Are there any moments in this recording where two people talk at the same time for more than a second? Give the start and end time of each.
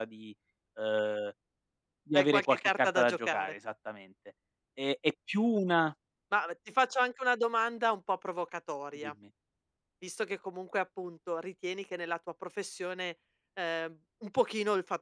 2.2-3.5

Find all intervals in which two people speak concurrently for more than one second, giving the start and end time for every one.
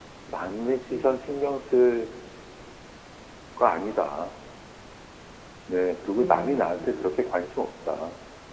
6.2-7.4

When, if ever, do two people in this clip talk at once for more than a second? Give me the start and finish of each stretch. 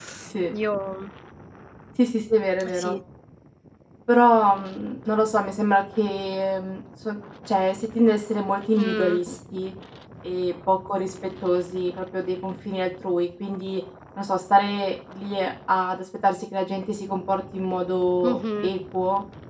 none

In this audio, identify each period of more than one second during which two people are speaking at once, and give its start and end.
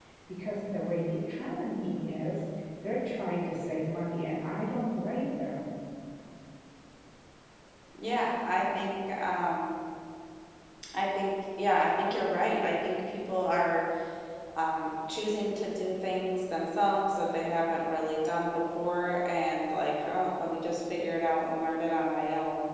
none

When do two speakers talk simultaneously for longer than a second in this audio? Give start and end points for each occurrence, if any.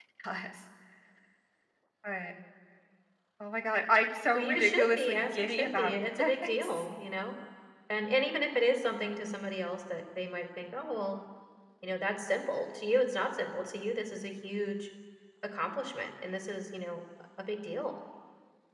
4.3-6.8

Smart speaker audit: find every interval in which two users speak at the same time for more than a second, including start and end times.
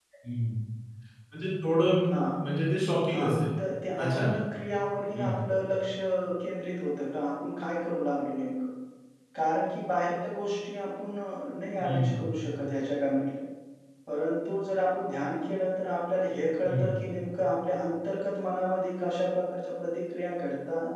none

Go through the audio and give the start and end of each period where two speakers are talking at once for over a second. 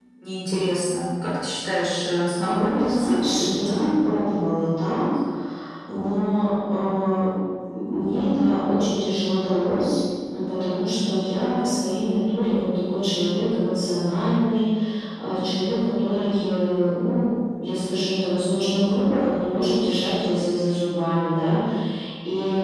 2.4-3.9

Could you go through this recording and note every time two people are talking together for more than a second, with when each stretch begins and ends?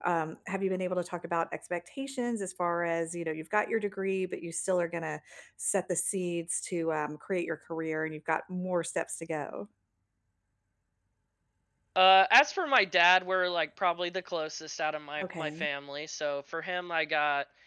none

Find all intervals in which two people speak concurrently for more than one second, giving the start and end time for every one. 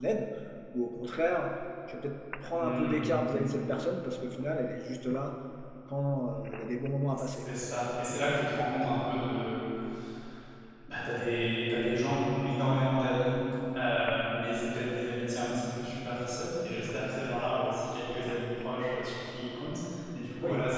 none

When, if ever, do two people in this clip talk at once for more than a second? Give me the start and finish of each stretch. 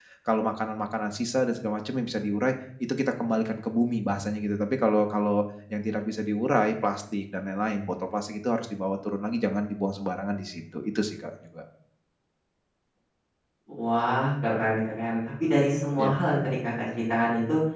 none

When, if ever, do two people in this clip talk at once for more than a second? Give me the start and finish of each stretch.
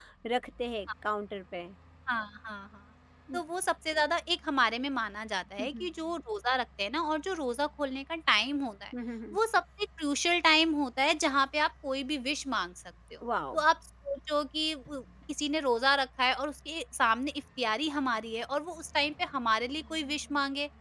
none

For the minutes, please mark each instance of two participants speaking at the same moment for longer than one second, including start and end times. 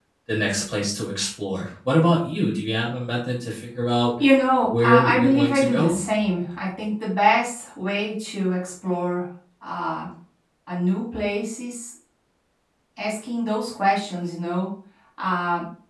4.6-5.9

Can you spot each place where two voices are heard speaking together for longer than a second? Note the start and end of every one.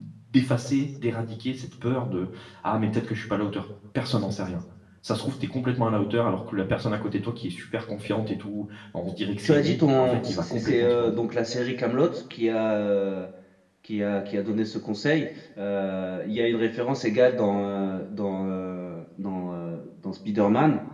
9.4-11.1

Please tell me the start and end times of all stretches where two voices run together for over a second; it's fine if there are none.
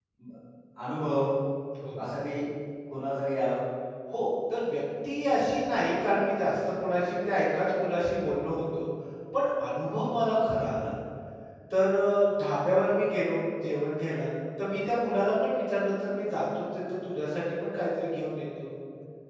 none

